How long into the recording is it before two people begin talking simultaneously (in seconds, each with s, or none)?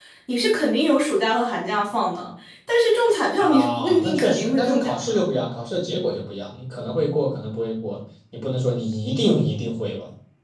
3.4 s